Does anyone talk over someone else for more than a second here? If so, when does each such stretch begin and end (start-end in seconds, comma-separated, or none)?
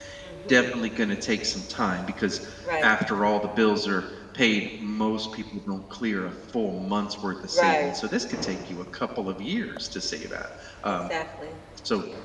none